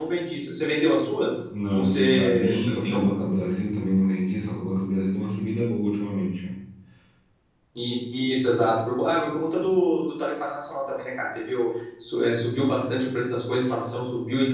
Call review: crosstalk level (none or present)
present